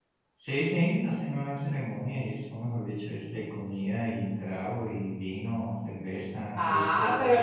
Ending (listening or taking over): taking over